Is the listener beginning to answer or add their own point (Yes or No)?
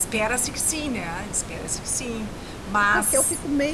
Yes